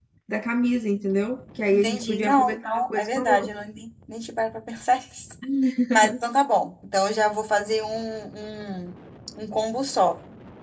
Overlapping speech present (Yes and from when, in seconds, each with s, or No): Yes, from 1.7 s